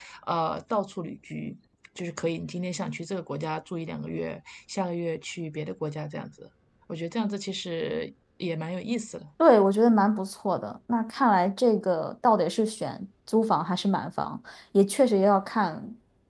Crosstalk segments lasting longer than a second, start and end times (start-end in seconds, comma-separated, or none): none